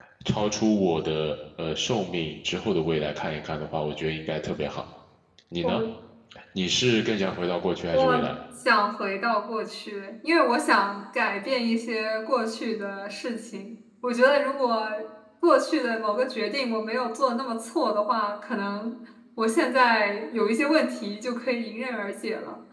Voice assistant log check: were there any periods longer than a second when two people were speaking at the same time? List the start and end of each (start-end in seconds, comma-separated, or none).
none